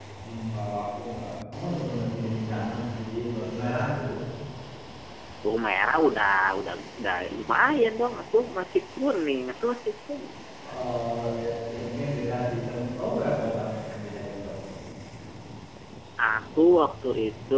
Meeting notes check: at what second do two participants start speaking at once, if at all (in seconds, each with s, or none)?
none